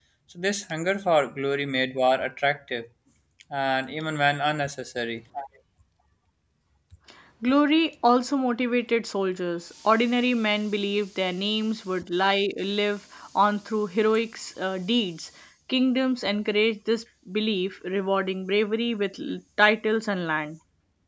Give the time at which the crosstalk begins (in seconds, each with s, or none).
none